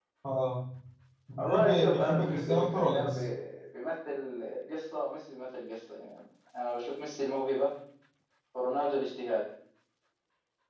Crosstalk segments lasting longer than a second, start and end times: 1.4-3.2

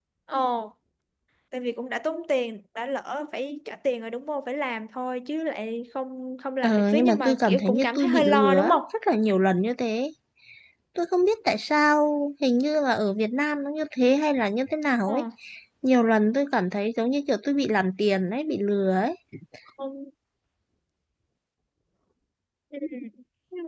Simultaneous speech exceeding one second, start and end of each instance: 6.6-8.8

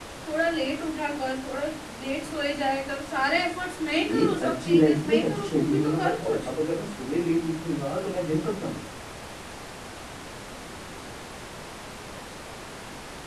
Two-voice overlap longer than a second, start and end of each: 4.0-6.5

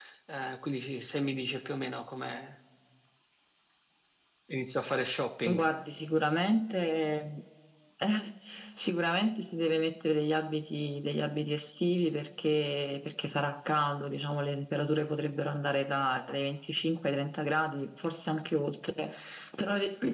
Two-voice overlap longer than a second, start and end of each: none

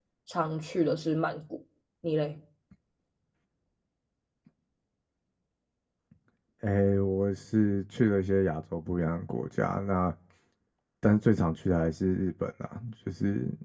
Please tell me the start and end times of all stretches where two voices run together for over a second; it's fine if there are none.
none

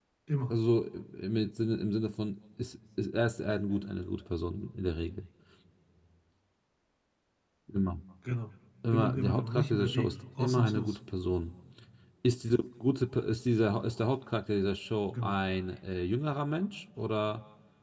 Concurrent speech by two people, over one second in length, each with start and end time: 8.9-11.0

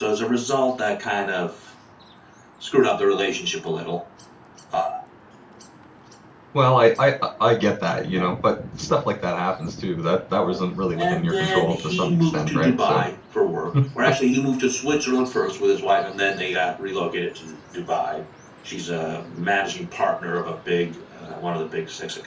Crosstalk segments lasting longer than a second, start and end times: 11.0-13.0

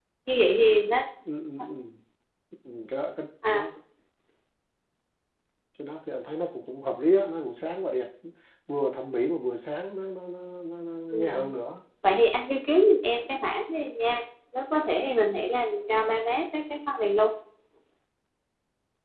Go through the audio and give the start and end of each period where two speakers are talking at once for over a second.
none

